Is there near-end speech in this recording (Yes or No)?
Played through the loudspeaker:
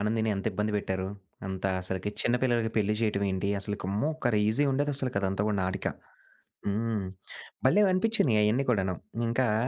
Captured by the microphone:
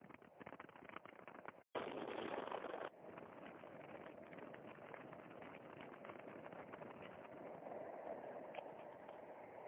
No